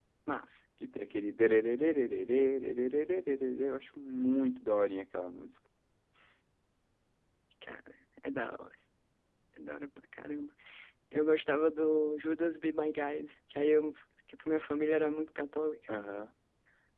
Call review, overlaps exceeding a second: none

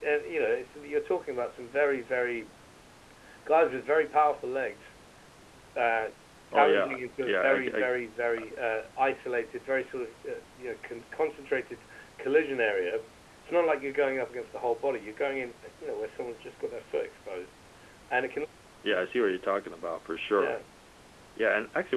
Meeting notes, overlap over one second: present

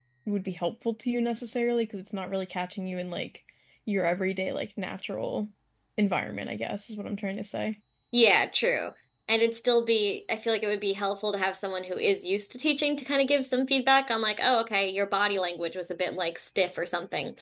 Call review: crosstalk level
none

